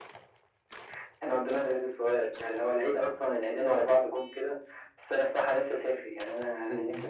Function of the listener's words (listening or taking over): taking over